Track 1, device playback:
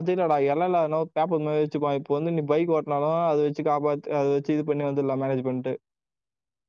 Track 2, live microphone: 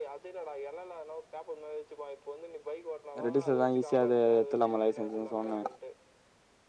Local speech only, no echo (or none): ரெட்டிஸ்ல தா ஈஸியாது எத்துலாப்பா லைசன்ஸுனு சொன்னே